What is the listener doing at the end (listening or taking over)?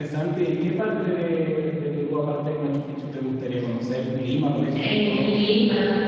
taking over